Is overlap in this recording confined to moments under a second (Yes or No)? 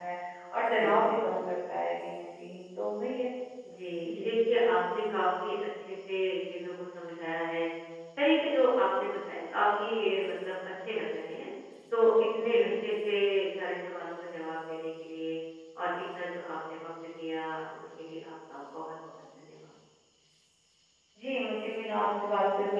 Yes